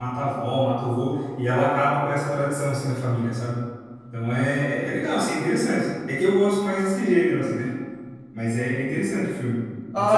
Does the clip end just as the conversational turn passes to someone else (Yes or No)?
Yes